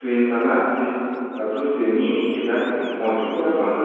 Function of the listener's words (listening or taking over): listening